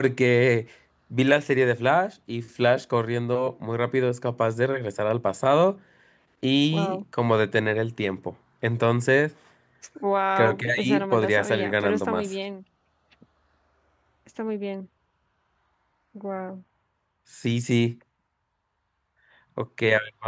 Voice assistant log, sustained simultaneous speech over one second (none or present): present